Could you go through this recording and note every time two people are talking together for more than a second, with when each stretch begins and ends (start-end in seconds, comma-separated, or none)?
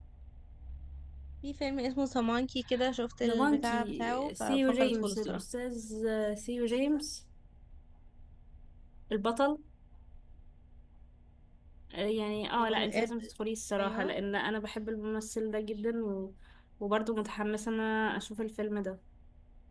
3.3-5.4